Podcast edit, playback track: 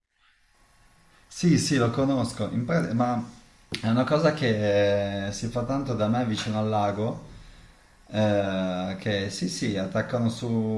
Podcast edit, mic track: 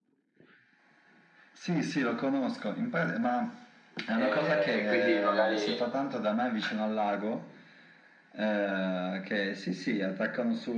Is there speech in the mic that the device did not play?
Yes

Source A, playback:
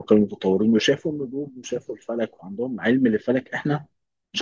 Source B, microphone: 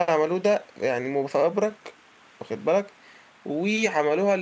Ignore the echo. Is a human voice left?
Yes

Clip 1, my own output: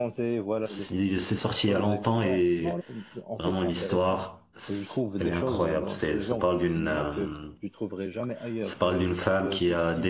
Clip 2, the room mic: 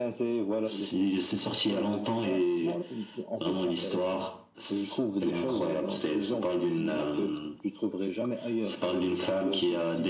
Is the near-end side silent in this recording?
Yes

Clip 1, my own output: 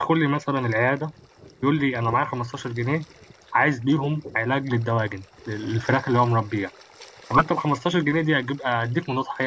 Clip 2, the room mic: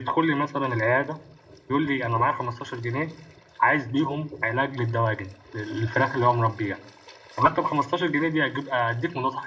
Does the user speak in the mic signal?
No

